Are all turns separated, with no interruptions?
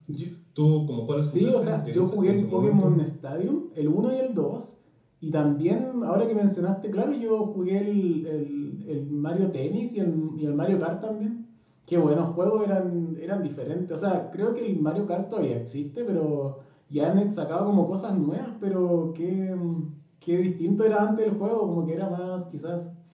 No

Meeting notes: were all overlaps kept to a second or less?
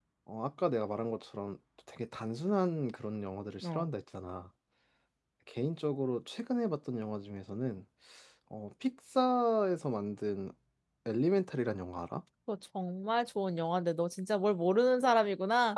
Yes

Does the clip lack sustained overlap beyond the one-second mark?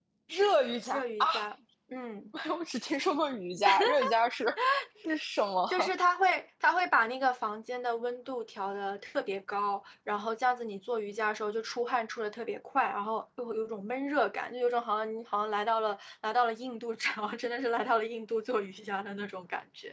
Yes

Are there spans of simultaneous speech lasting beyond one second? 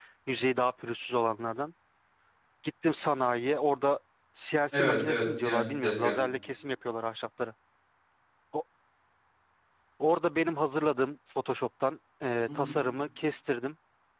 Yes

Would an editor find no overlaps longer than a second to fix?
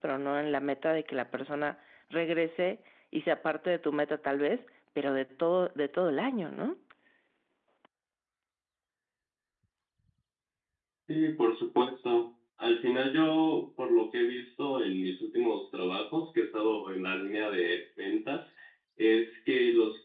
Yes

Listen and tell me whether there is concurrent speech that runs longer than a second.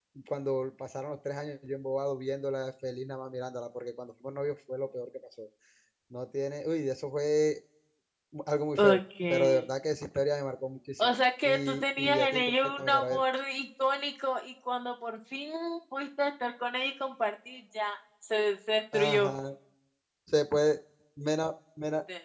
Yes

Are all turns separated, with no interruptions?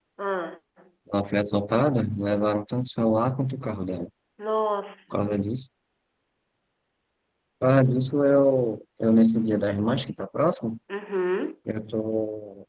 Yes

